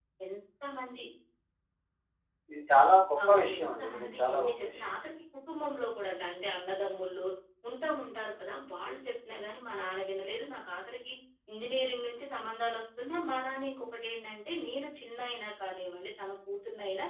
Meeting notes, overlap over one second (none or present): present